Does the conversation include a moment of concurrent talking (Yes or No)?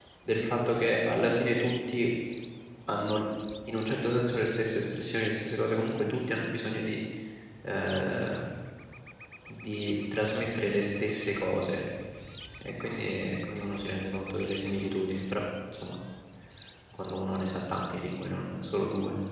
No